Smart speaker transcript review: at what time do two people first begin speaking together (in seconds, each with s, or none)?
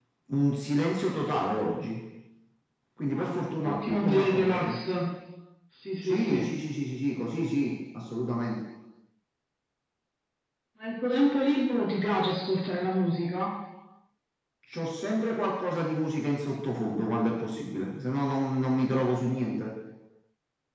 3.2 s